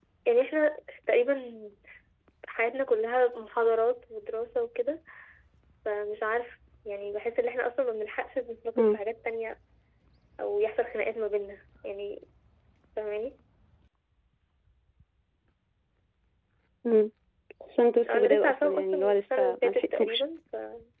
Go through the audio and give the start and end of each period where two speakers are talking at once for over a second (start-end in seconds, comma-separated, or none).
18.1-20.2